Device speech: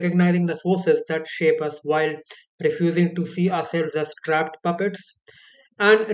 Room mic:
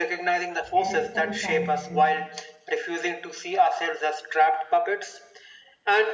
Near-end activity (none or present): present